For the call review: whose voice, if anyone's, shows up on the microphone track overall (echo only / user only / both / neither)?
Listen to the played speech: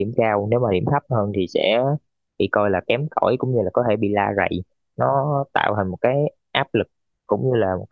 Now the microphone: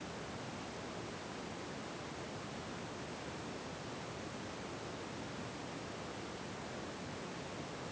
neither